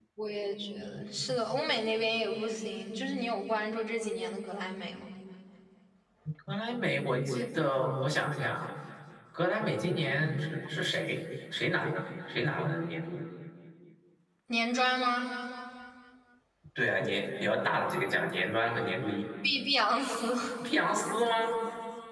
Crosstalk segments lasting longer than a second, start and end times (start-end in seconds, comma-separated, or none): none